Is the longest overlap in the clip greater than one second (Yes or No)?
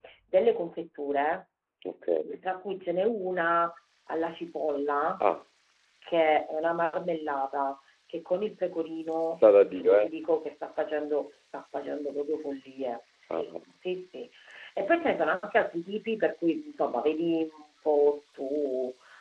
No